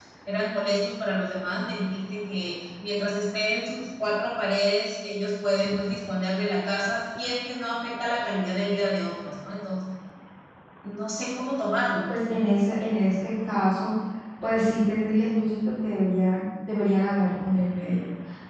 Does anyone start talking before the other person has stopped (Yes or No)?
No